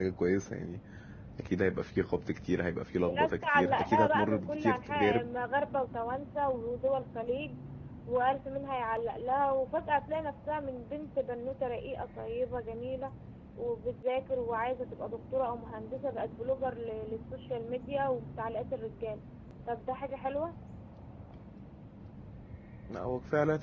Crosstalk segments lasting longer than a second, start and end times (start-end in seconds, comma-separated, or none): 3.1-5.2